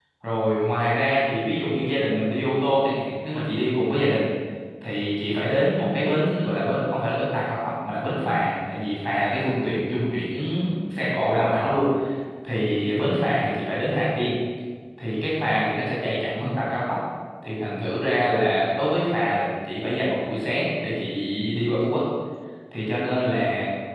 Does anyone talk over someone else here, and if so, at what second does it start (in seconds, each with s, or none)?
none